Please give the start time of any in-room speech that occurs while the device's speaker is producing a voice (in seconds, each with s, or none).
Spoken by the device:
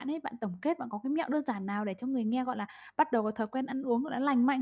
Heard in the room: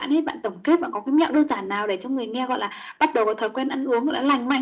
none